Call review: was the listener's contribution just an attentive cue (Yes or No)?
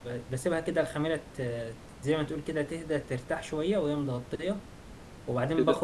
No